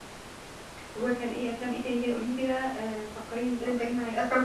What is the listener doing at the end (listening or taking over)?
taking over